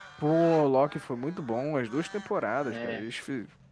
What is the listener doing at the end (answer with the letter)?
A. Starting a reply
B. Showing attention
B